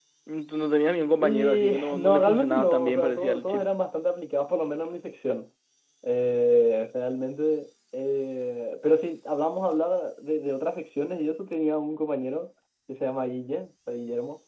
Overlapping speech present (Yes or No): Yes